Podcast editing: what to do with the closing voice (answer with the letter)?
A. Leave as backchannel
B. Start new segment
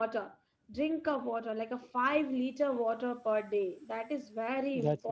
B